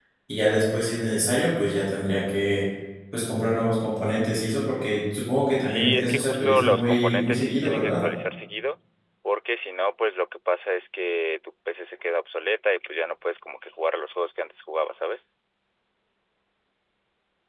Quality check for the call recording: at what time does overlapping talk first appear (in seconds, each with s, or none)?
5.6 s